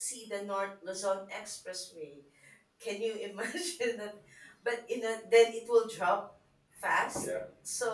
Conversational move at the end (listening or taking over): listening